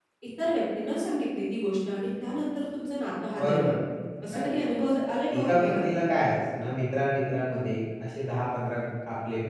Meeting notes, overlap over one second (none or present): none